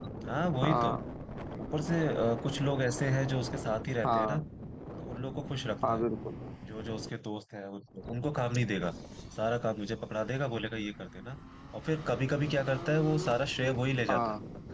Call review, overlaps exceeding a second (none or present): none